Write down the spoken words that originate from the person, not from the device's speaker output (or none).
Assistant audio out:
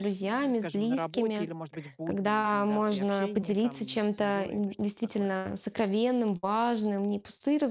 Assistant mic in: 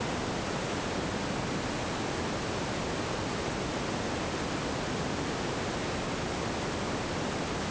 none